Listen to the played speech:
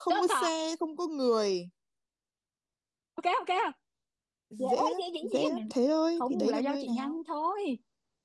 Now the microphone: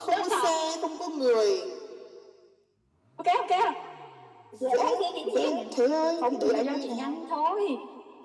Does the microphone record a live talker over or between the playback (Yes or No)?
No